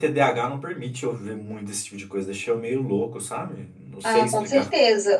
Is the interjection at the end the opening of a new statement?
Yes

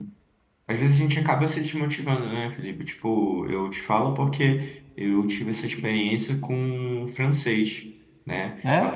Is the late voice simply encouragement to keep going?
Yes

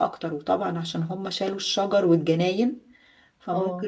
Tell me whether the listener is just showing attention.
Yes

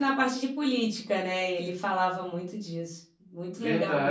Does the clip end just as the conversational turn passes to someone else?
Yes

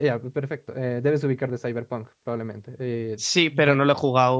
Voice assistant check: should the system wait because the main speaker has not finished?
No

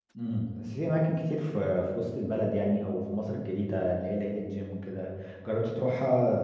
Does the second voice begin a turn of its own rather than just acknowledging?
No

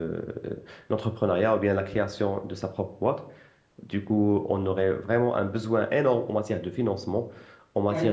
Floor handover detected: No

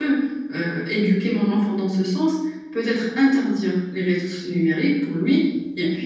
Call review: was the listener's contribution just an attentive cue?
Yes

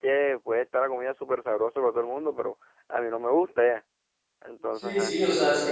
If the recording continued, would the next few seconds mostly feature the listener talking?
Yes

